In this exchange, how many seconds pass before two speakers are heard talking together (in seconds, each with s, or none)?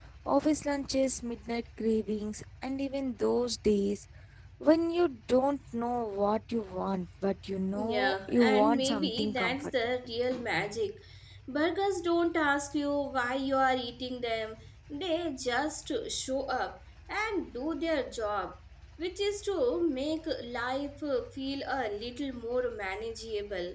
7.7 s